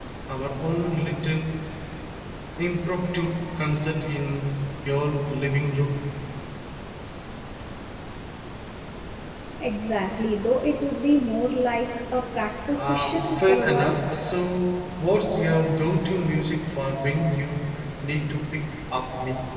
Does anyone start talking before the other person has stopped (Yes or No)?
Yes